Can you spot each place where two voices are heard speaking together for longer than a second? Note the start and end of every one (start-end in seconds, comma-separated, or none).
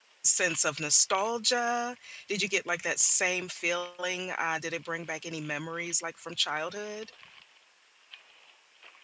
none